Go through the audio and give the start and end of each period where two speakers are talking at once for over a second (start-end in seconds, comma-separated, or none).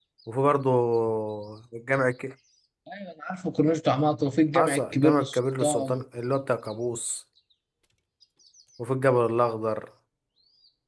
4.5-5.9